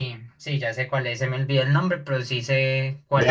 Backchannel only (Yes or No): No